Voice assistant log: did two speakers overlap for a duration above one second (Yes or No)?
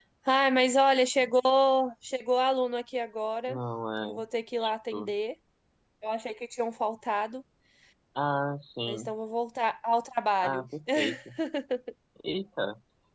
No